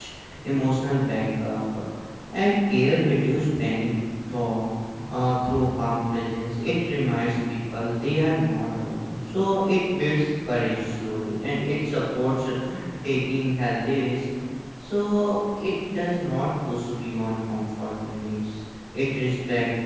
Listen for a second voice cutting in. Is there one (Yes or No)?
No